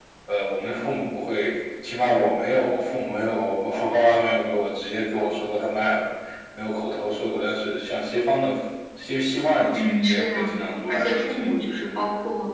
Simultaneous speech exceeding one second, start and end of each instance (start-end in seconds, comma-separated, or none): 9.7-11.4